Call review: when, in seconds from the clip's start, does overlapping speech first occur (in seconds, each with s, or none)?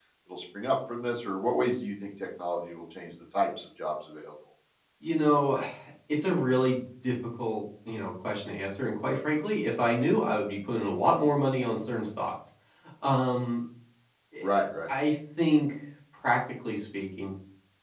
none